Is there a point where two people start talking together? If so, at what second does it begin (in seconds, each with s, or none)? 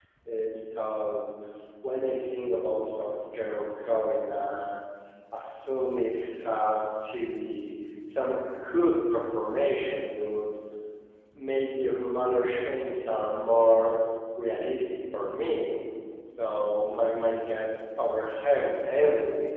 none